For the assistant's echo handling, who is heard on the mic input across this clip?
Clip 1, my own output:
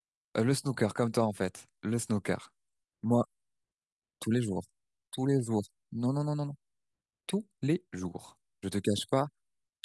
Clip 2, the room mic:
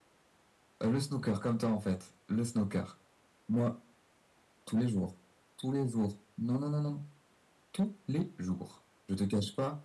echo only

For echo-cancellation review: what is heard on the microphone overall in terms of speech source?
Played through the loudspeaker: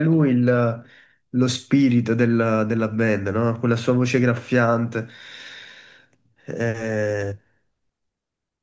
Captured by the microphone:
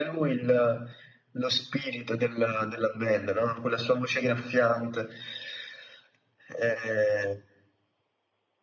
echo only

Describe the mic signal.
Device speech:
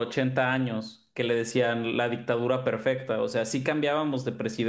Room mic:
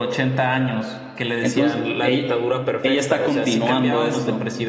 both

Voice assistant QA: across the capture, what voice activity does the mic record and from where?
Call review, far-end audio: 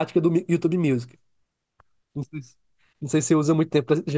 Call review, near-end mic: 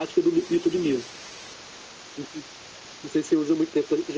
echo only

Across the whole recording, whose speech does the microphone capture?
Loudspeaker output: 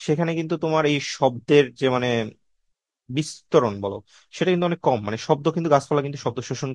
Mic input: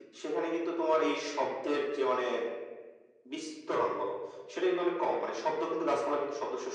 echo only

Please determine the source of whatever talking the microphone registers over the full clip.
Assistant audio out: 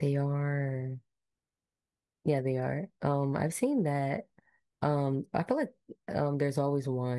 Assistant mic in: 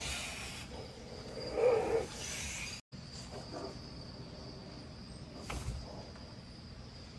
neither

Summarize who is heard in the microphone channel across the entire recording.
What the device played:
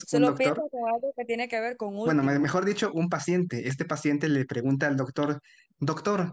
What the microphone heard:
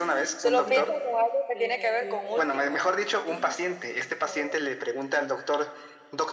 both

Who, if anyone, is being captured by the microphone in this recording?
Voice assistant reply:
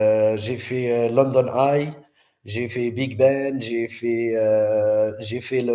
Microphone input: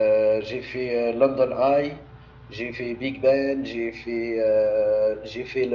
echo only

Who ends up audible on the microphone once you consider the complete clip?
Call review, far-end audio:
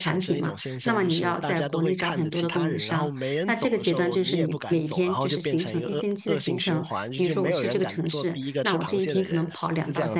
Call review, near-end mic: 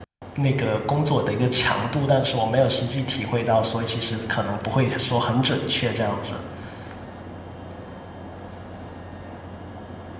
user only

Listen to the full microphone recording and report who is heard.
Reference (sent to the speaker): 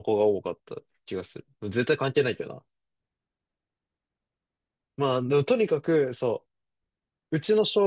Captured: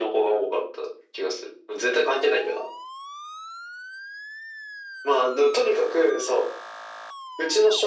echo only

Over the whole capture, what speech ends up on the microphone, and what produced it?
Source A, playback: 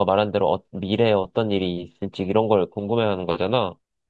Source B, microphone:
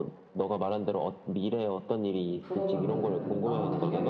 both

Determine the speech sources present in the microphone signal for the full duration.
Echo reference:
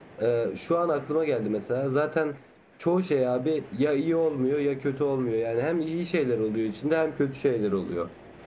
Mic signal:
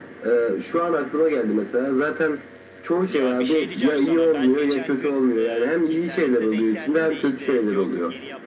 both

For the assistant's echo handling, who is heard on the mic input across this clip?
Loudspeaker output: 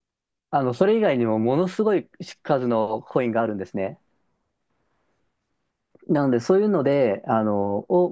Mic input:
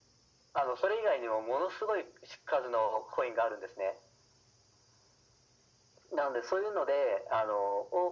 echo only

